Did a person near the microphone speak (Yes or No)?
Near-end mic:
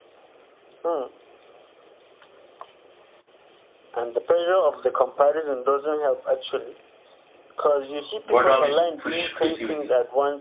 Yes